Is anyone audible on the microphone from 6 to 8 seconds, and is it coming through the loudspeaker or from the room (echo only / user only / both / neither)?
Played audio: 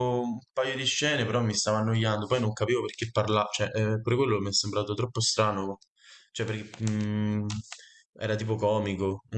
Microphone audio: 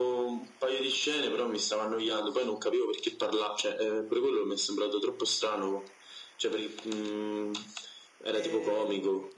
echo only